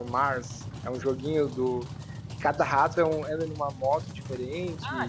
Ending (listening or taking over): taking over